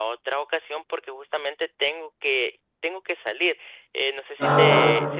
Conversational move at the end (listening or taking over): listening